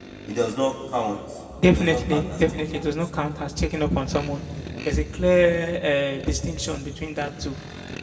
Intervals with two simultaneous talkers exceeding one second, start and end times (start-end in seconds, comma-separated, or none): 1.7-3.3